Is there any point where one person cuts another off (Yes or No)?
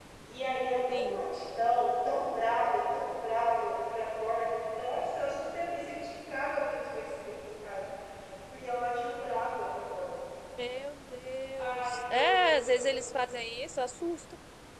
Yes